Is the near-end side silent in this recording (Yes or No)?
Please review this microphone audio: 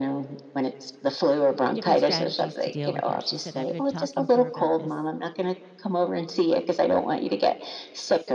No